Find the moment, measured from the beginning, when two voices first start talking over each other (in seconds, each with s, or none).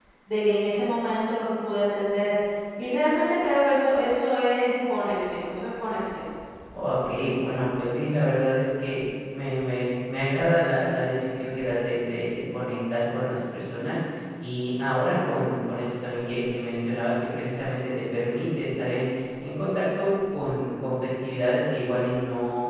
none